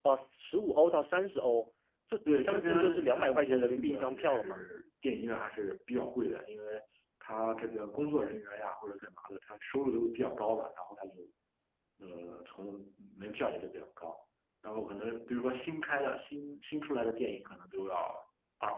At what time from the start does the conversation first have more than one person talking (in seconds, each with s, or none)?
2.3 s